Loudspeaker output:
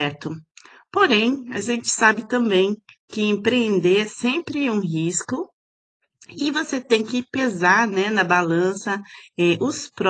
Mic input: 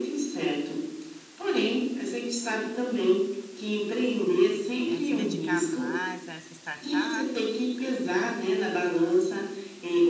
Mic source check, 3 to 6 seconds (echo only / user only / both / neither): both